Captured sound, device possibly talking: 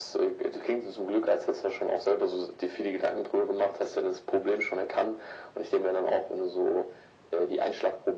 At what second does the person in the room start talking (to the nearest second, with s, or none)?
none